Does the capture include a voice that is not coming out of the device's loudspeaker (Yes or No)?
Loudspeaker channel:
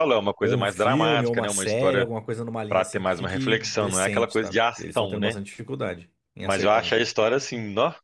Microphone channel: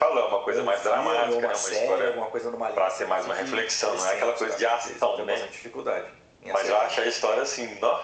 No